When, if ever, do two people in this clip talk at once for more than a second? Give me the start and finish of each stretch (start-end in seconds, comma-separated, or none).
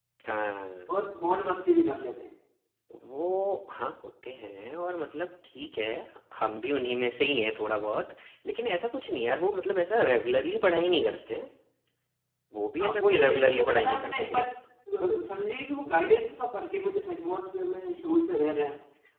12.8-14.4